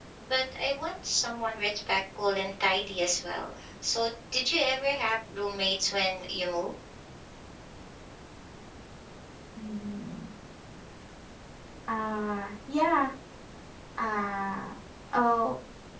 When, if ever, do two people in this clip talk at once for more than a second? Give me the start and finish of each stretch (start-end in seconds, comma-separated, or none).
none